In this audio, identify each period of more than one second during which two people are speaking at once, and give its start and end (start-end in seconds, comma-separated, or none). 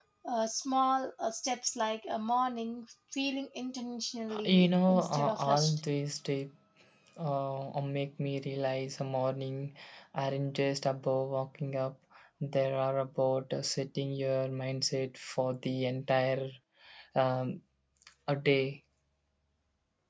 4.5-5.8